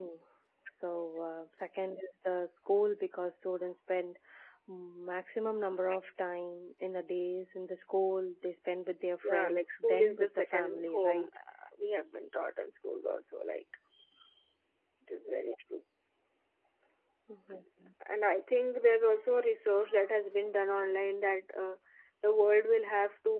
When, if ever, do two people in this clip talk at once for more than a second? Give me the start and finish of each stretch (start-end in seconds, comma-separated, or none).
9.2-11.3